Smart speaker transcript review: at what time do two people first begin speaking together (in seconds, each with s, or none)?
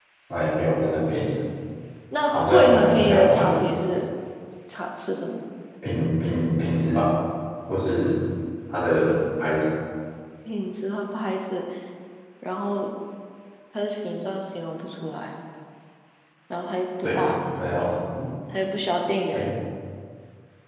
2.3 s